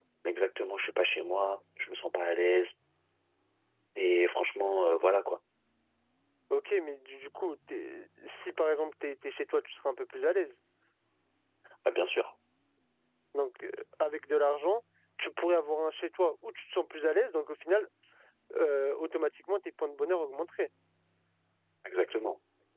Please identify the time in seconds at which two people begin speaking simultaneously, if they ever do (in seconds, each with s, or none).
none